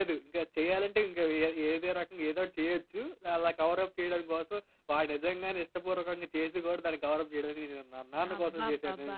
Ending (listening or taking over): taking over